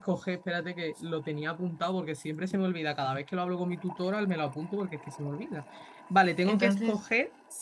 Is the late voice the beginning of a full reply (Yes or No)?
No